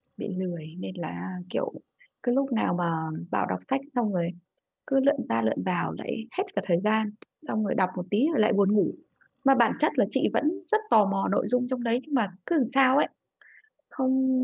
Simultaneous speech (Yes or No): No